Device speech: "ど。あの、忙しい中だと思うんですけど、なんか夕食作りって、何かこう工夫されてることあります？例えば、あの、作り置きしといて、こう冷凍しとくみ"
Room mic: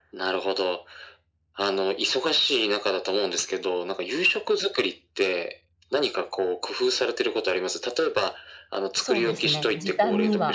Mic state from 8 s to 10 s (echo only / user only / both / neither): both